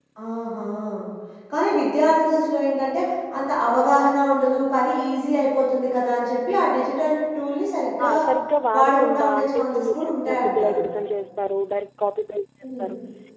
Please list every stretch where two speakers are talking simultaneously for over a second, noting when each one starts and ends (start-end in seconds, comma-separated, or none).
8.8-10.8